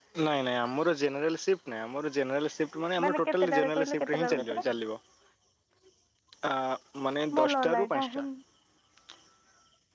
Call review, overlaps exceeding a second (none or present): present